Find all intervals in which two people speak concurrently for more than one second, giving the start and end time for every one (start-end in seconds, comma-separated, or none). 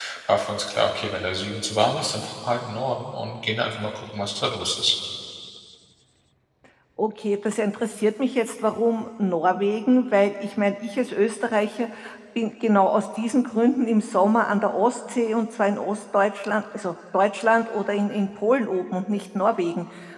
none